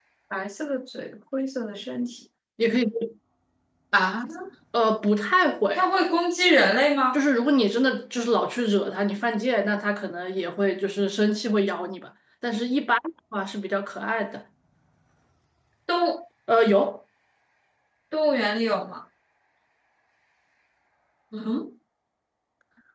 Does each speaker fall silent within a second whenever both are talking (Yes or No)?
Yes